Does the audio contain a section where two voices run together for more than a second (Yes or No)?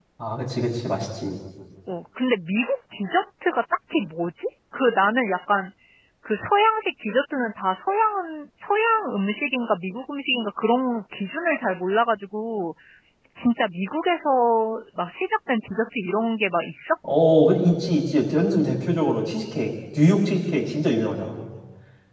No